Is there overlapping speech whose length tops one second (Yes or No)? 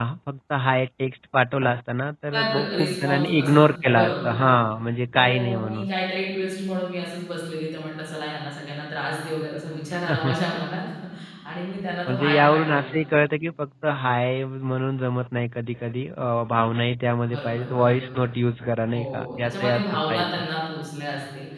Yes